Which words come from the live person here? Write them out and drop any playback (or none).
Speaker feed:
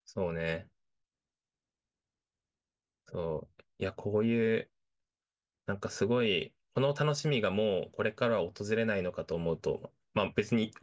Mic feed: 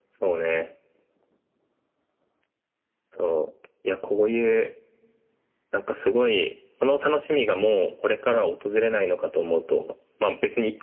none